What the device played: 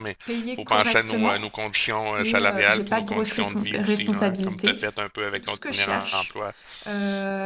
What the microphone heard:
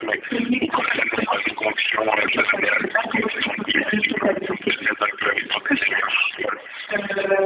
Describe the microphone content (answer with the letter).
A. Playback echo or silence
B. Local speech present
A